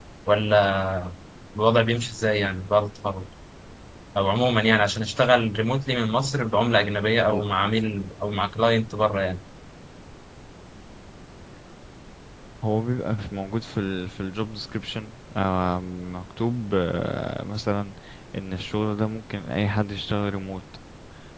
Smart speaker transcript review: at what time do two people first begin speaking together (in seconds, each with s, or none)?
none